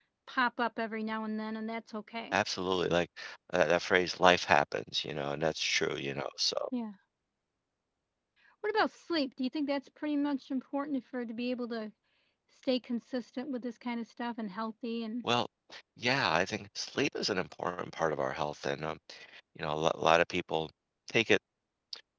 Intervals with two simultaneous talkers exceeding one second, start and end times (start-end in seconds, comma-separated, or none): none